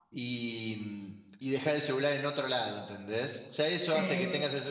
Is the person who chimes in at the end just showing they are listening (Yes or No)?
Yes